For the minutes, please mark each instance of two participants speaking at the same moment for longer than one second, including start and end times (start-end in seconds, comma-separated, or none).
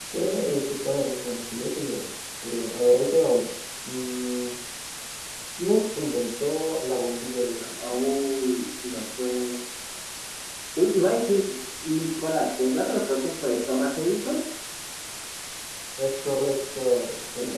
none